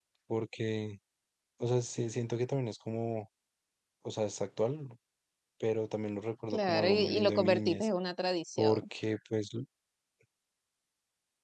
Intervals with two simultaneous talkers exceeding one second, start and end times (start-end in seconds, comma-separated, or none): 6.5-7.9